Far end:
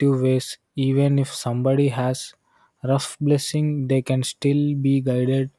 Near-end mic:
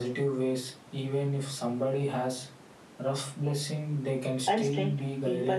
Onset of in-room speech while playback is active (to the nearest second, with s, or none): 4 s